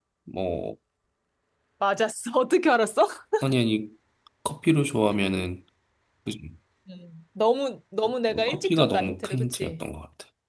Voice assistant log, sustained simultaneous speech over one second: present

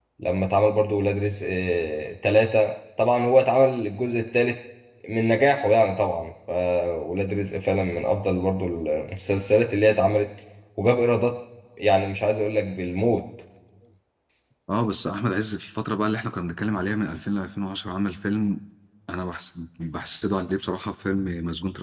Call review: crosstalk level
none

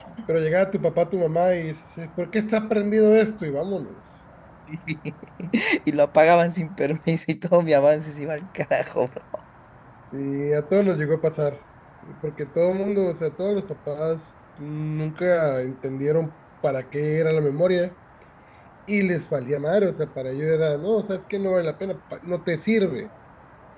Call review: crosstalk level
none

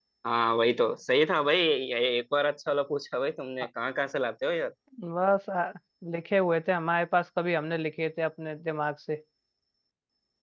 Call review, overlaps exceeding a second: none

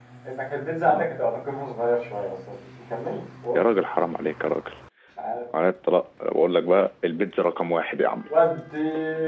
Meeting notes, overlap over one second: none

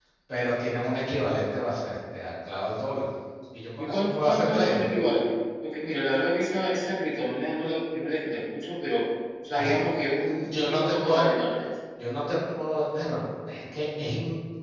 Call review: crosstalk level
present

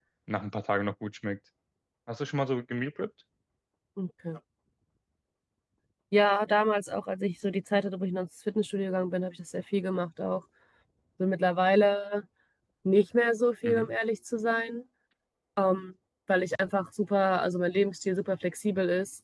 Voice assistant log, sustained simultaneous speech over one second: none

